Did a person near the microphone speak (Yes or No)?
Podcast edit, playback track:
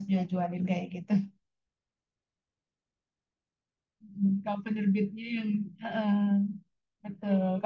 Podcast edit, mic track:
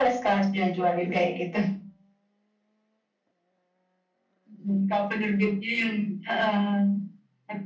No